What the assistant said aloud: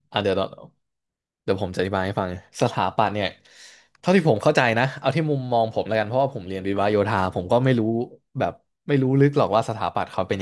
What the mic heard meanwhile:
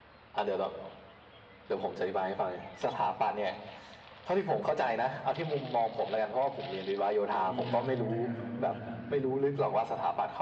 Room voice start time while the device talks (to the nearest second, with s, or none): 7 s